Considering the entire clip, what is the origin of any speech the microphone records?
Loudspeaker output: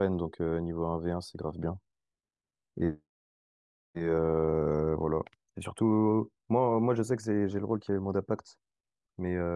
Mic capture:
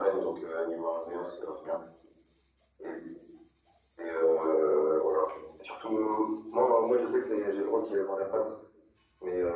echo only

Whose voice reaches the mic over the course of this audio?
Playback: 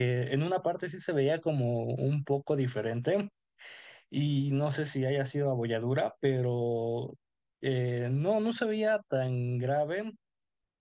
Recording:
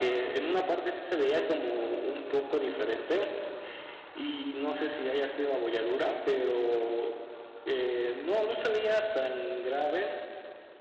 echo only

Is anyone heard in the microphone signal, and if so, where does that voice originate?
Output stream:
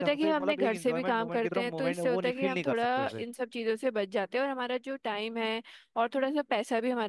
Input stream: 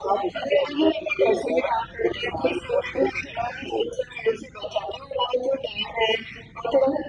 echo only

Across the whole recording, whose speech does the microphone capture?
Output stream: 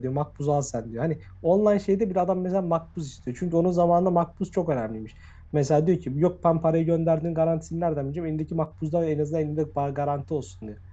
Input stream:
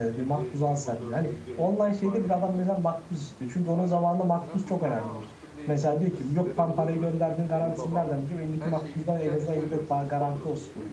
both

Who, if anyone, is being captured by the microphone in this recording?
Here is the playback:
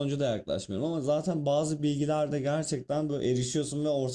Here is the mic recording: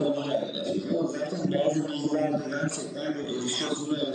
echo only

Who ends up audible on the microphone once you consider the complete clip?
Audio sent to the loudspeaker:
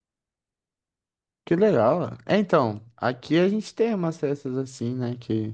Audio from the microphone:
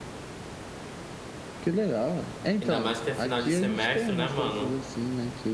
both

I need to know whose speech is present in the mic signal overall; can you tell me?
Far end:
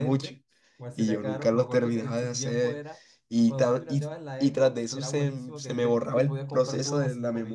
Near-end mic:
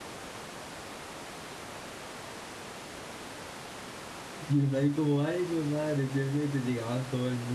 user only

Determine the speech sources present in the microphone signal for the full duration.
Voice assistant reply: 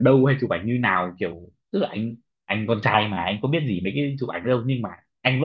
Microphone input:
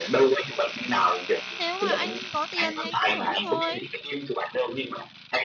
both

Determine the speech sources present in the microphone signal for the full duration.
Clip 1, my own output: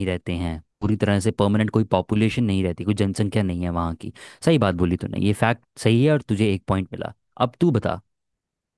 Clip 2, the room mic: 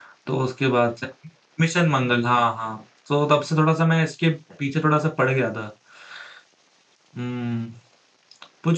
user only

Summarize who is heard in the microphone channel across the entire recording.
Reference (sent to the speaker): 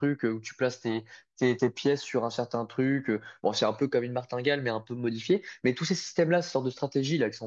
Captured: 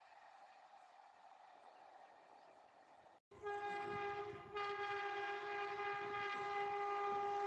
neither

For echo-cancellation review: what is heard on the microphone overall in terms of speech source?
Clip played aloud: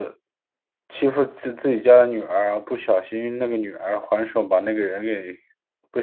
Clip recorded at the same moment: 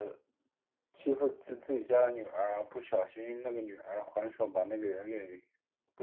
echo only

